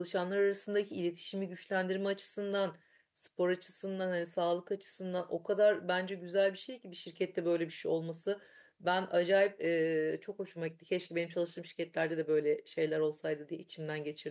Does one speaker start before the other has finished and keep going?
No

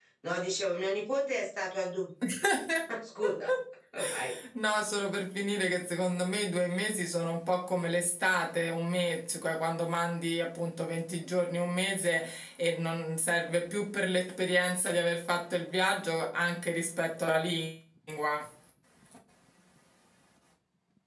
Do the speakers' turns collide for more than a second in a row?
No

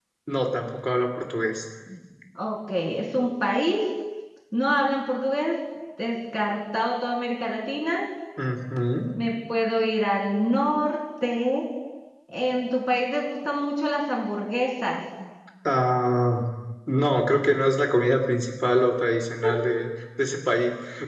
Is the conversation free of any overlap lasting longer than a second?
Yes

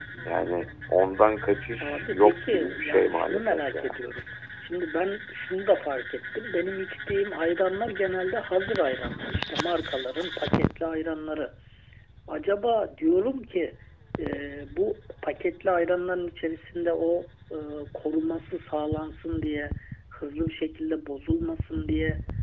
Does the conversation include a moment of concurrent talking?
Yes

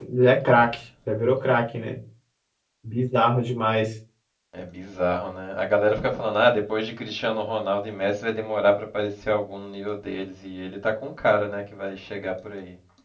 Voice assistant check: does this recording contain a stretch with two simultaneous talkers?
No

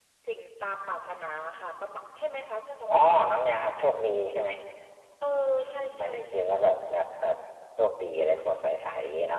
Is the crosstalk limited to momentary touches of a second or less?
No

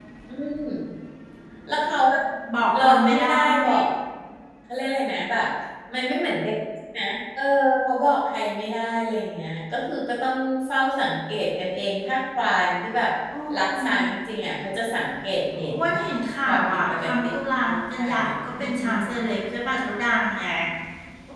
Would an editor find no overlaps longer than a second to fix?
No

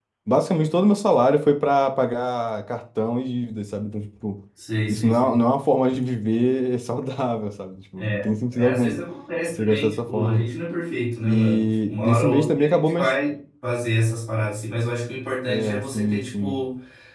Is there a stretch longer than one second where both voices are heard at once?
Yes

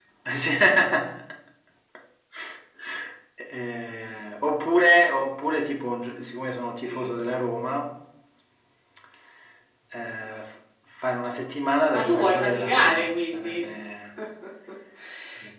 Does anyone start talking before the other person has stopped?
Yes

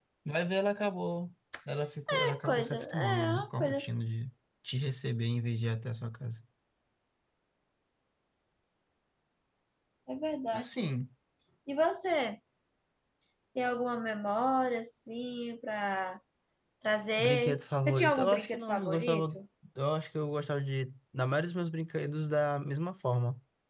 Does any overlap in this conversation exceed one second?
Yes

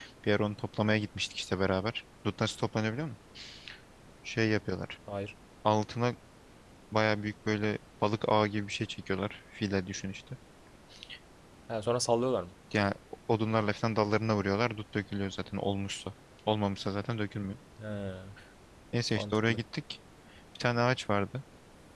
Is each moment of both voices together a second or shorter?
Yes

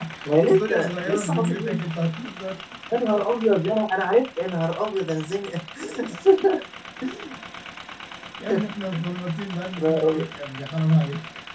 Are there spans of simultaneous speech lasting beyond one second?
Yes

